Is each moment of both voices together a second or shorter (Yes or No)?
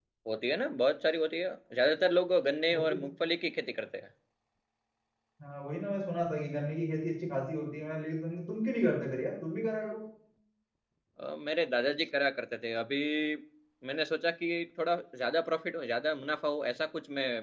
Yes